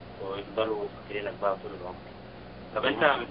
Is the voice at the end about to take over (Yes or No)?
No